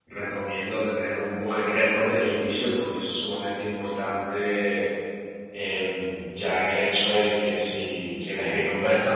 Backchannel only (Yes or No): Yes